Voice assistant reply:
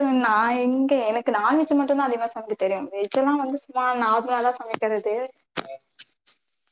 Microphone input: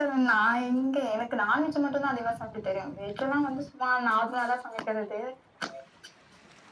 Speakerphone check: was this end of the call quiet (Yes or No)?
Yes